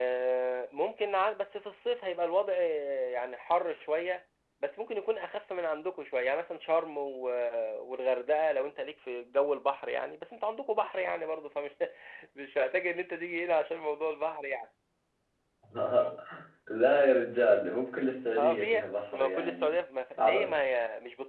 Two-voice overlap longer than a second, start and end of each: 18.4-19.8

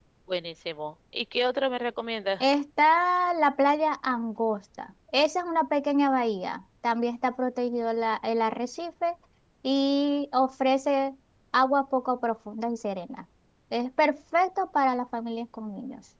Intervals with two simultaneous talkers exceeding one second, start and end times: none

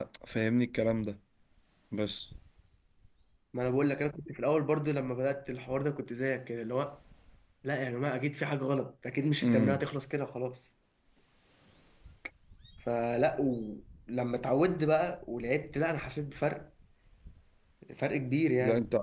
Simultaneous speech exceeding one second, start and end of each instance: none

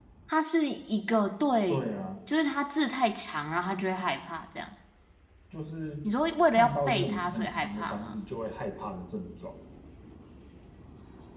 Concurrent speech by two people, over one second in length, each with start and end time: 6.5-8.1

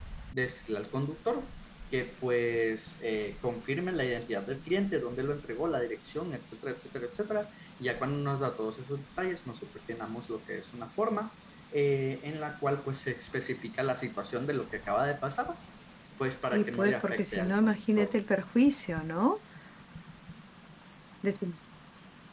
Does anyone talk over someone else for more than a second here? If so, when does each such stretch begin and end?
16.5-18.1

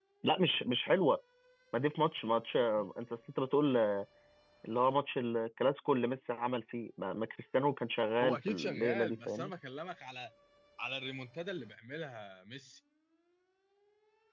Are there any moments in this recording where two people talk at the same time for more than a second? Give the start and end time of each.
8.2-9.5

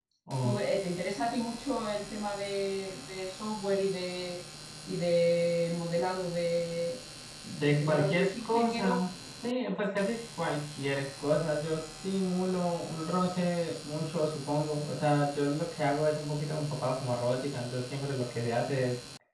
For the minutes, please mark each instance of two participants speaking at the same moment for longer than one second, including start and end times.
7.7-9.0

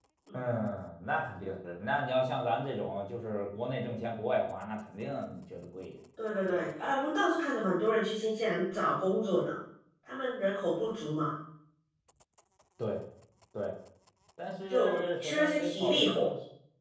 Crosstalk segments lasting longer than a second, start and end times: 14.7-16.1

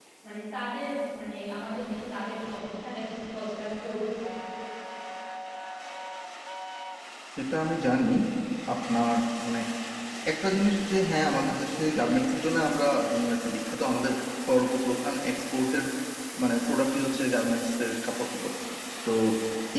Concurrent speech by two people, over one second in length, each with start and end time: none

